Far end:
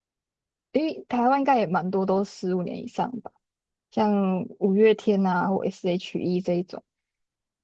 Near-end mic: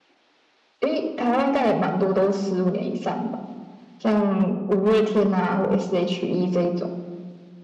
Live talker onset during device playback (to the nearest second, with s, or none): none